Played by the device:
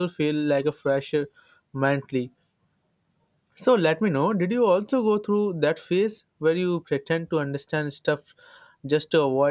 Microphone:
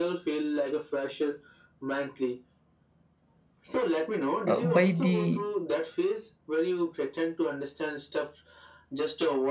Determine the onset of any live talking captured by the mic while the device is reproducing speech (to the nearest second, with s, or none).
4 s